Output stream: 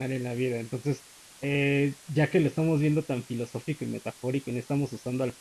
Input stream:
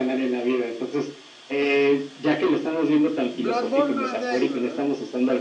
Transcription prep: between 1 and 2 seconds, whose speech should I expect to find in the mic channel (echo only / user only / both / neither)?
echo only